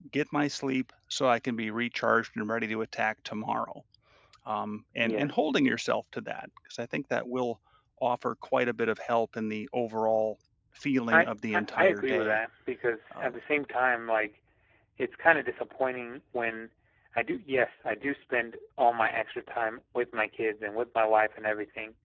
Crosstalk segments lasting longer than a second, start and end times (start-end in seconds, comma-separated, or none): 11.1-12.4